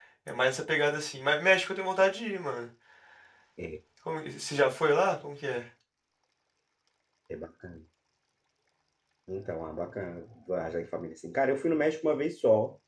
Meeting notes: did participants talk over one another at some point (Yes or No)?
No